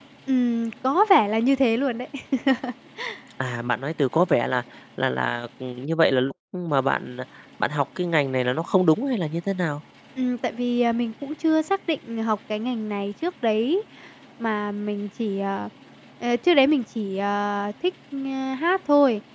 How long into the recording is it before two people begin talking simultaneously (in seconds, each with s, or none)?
none